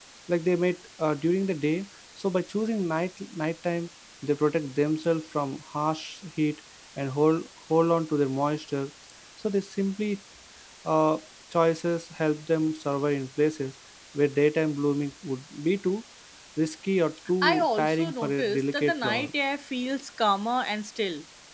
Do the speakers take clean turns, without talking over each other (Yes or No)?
No